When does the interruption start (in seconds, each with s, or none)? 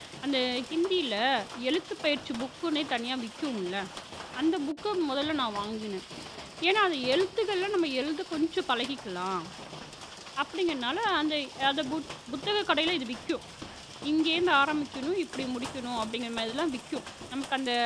none